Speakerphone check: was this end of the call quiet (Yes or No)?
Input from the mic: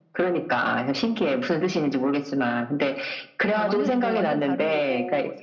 No